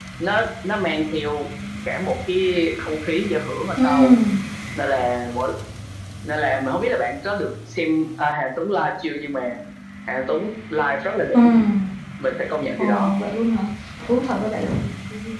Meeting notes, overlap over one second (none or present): none